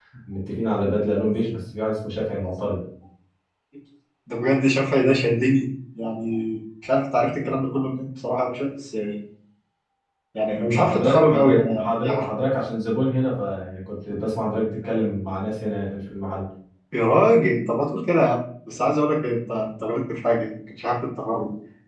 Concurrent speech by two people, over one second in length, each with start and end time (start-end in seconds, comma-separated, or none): 10.7-12.3